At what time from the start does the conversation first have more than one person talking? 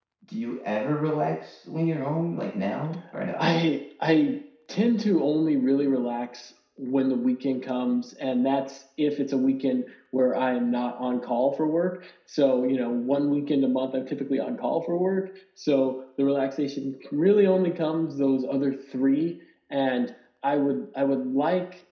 none

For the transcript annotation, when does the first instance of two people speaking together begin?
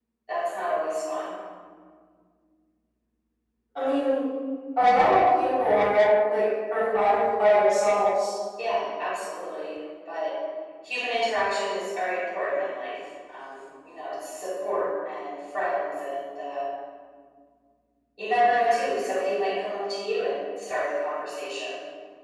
none

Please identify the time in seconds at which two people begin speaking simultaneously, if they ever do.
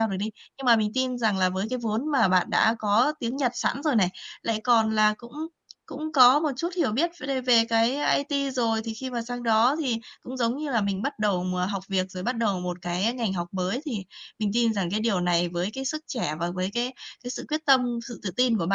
none

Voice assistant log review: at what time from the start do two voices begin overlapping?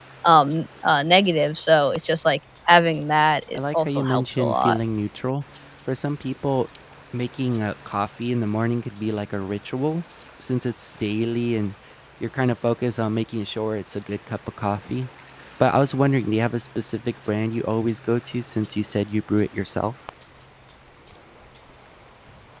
3.5 s

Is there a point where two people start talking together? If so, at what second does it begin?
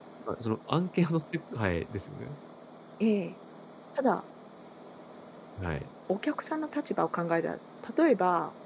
none

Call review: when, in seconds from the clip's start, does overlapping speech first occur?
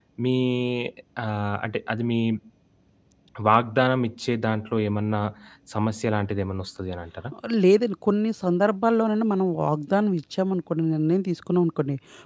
none

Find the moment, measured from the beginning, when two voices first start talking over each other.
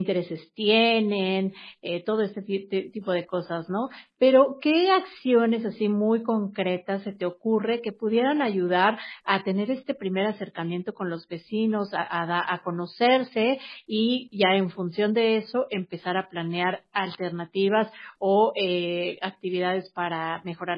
none

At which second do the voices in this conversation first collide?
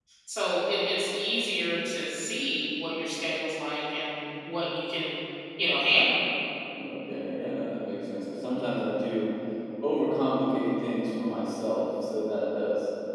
none

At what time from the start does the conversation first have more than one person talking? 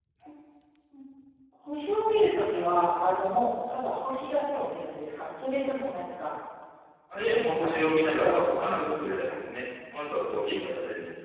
7.2 s

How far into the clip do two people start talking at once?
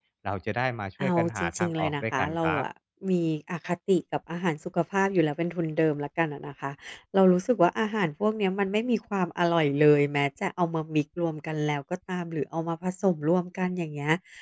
1.0 s

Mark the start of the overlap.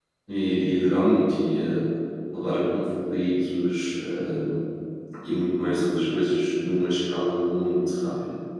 none

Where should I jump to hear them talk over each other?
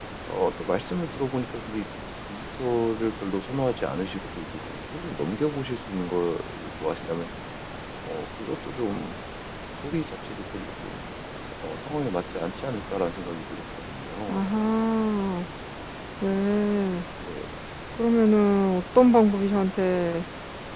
none

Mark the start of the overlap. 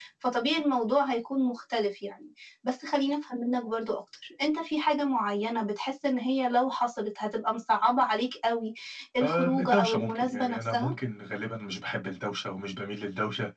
9.2 s

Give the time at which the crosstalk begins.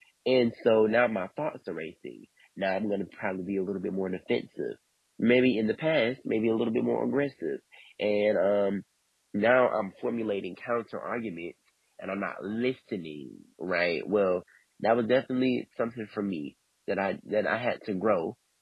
none

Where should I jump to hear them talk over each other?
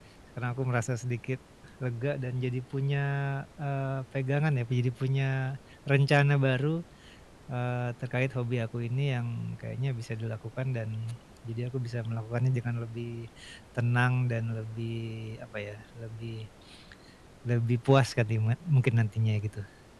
none

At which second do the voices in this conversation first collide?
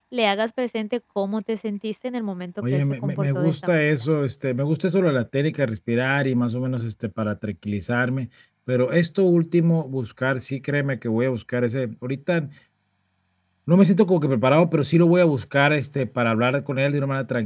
2.6 s

